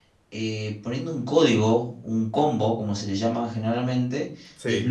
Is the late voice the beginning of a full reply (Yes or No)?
No